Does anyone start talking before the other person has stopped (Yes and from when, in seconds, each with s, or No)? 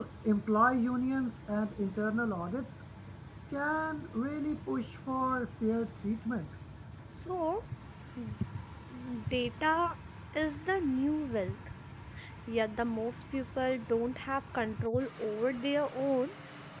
No